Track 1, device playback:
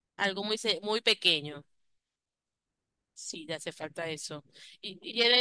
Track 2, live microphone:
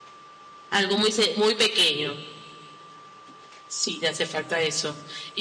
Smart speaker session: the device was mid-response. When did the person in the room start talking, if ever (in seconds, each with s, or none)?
none